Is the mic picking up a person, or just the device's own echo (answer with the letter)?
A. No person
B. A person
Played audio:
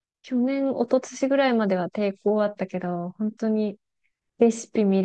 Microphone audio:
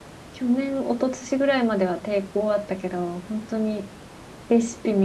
A